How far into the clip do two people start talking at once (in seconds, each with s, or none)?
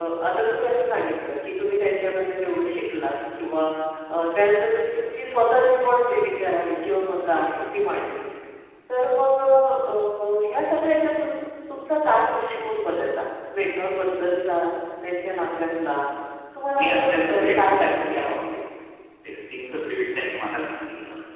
16.8 s